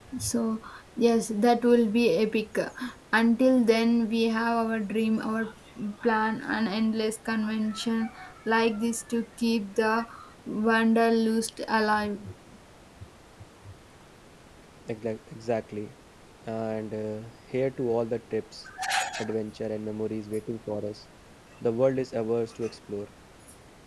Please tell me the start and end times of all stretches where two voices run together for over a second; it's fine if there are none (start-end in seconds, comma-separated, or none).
none